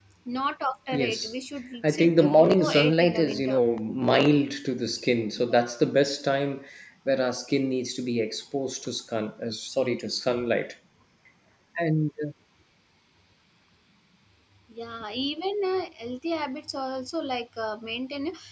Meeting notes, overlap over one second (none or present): present